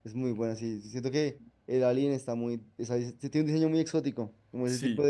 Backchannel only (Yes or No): Yes